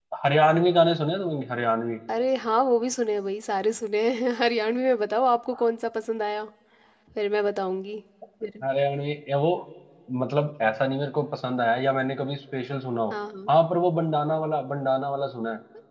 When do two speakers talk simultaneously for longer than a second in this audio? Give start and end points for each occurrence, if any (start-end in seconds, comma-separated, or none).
none